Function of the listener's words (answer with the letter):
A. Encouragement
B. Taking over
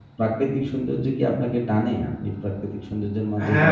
B